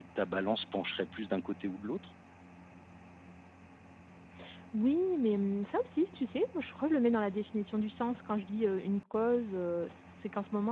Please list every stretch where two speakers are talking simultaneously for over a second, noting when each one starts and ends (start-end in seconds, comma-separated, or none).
none